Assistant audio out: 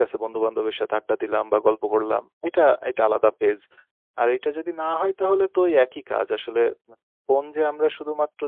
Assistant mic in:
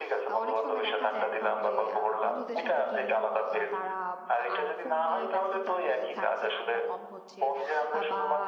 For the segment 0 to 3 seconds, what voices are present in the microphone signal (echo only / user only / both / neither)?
both